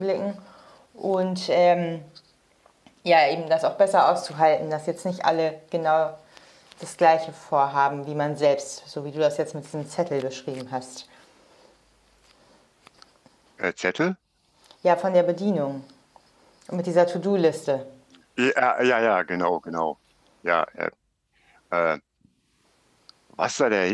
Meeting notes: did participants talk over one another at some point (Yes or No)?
No